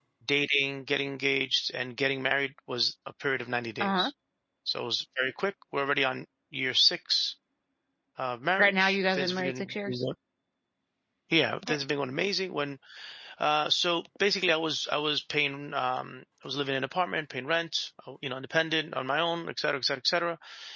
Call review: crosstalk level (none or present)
present